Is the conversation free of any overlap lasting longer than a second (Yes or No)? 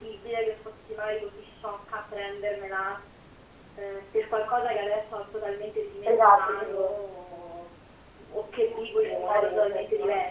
No